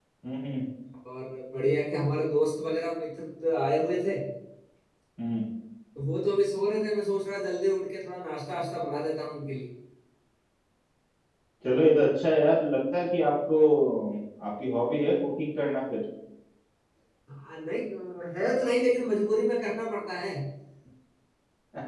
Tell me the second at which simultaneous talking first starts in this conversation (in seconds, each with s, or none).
none